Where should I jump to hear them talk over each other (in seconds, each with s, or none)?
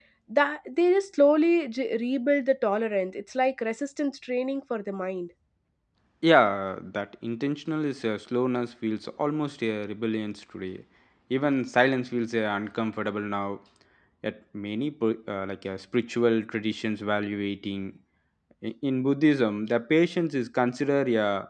none